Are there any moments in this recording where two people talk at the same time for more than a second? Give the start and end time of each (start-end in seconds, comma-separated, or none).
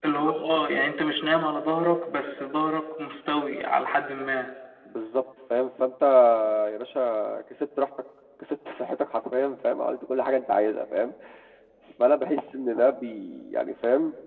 none